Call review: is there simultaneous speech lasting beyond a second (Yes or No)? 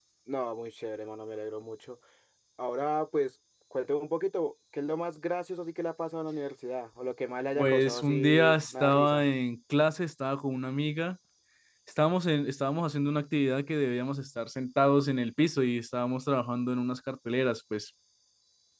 Yes